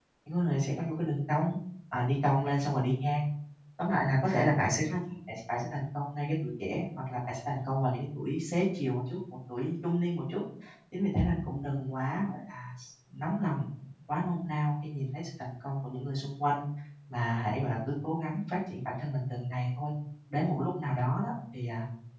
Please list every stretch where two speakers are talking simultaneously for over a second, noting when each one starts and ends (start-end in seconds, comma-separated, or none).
none